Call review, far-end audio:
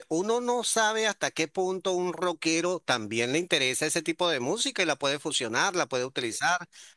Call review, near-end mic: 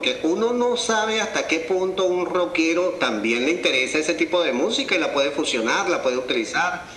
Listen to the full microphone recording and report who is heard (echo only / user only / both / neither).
echo only